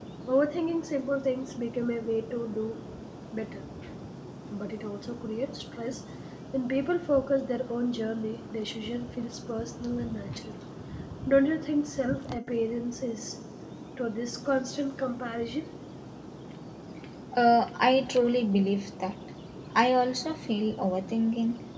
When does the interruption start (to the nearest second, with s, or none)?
none